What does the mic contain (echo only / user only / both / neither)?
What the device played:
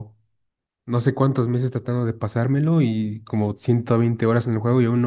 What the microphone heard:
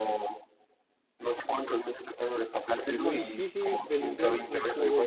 both